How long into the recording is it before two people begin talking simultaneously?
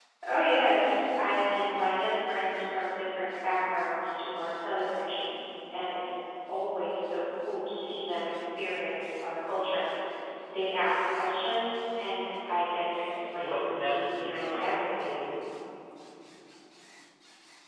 13.4 s

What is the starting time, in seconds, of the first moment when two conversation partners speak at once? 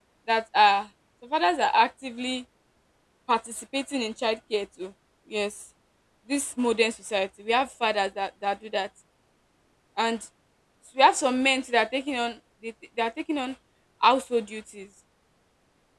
none

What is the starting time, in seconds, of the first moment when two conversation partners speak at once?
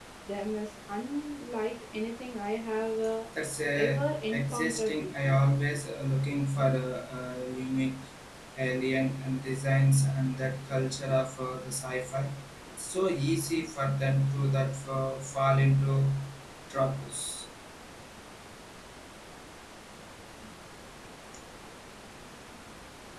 3.8 s

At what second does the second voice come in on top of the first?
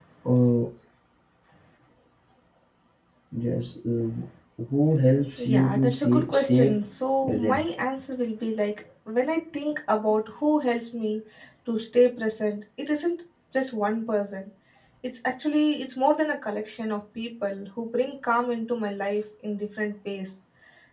5.4 s

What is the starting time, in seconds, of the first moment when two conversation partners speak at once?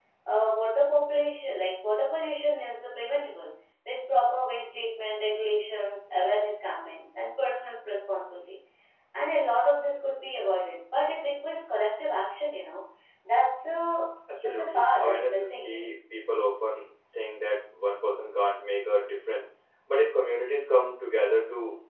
14.3 s

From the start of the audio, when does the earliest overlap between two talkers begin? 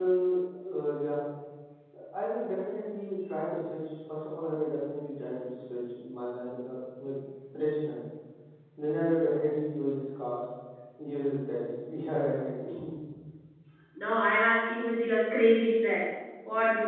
none

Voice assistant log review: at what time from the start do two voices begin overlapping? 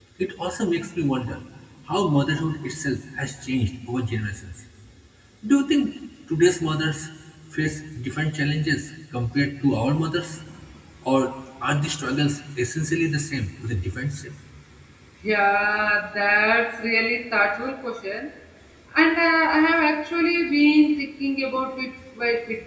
none

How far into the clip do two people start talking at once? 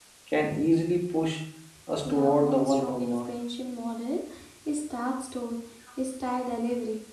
2.0 s

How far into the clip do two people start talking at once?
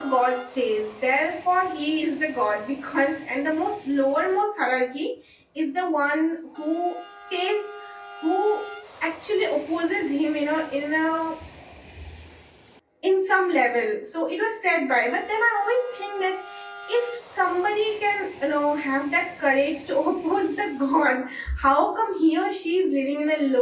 none

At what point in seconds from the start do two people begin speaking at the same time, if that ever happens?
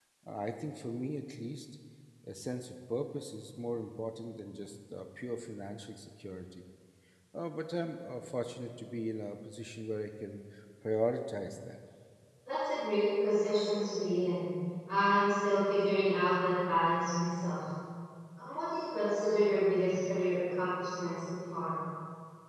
none

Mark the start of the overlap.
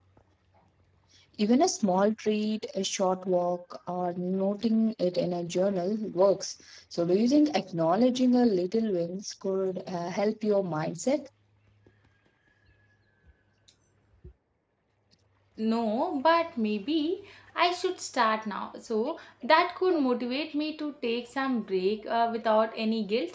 none

